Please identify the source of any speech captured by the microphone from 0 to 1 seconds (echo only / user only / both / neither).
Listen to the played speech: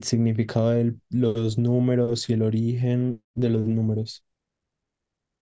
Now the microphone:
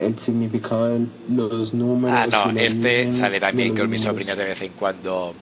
echo only